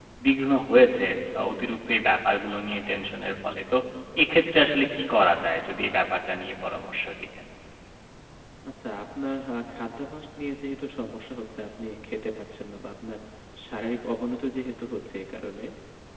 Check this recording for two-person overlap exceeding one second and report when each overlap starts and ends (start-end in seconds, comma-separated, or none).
none